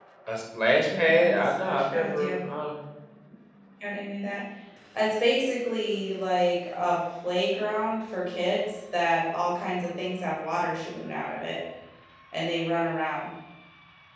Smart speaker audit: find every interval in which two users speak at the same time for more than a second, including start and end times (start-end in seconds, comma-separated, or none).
0.8-2.4